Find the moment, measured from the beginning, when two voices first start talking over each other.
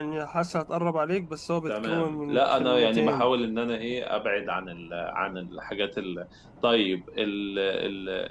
2 s

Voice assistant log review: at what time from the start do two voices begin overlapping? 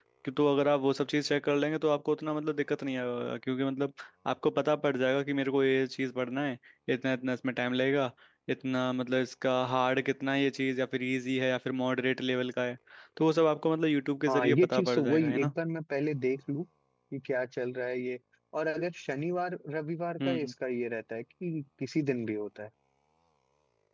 14 s

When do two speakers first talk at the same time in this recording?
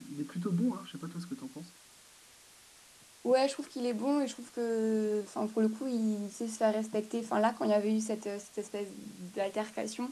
none

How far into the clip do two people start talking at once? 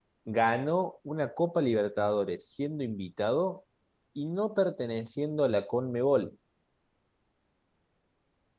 none

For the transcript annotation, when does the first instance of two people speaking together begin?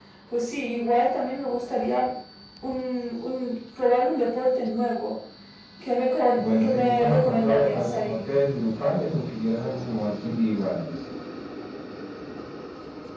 6 s

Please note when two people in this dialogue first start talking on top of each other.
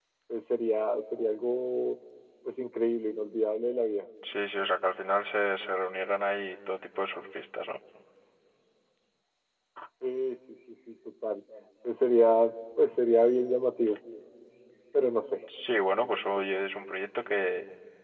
none

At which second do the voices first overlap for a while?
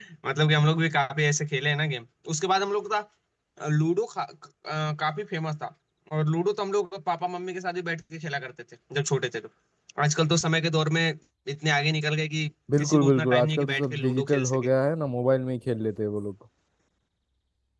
13 s

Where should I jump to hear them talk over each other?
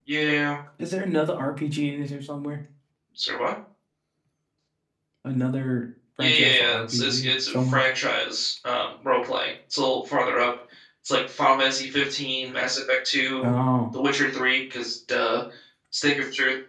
6 s

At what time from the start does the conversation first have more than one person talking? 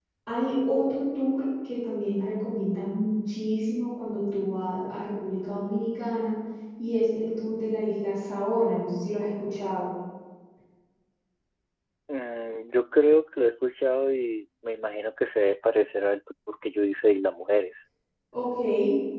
none

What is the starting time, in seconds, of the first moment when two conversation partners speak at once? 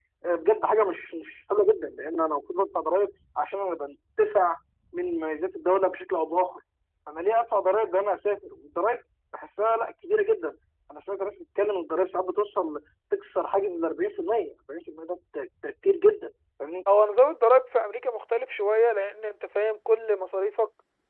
none

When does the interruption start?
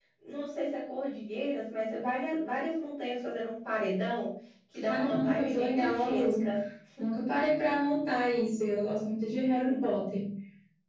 5 s

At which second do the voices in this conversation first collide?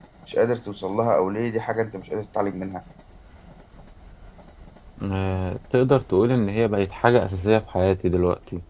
none

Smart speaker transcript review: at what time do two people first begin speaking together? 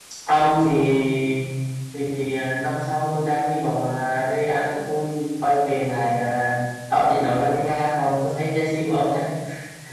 none

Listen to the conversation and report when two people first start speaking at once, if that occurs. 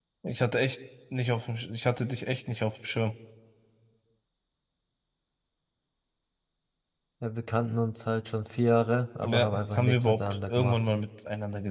9 s

